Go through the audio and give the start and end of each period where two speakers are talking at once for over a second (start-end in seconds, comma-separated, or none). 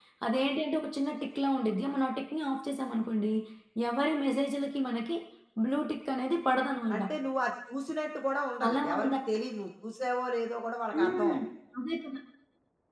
none